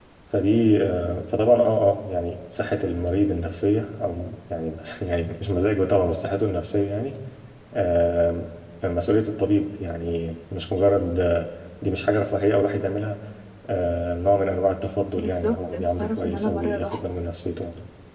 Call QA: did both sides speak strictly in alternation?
No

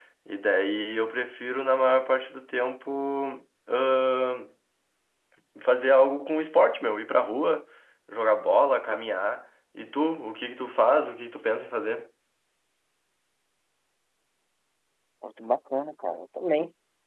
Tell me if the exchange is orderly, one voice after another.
Yes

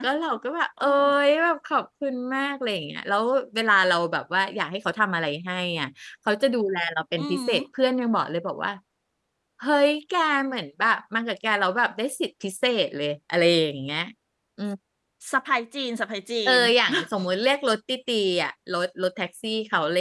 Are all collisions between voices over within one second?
Yes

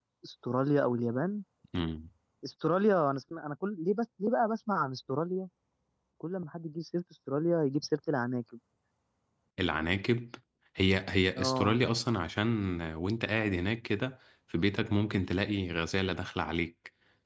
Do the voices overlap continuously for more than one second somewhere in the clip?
No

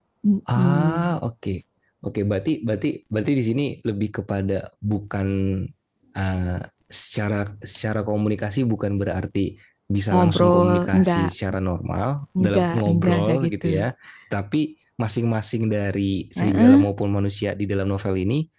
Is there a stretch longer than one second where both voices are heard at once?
Yes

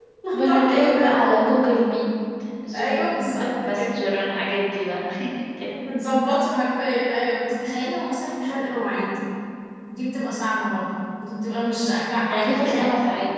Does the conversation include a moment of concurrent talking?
Yes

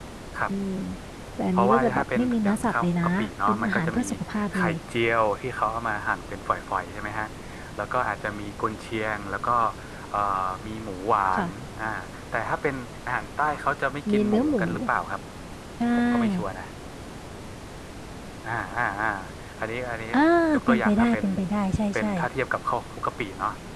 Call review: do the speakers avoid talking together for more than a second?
No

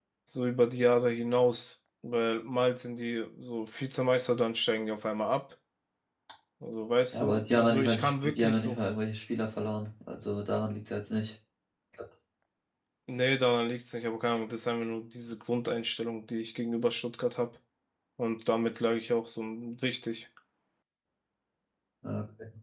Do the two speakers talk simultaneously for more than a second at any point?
Yes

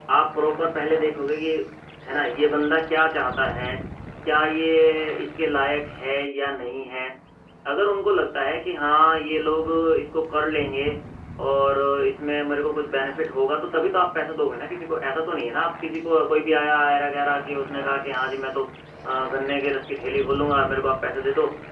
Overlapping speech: No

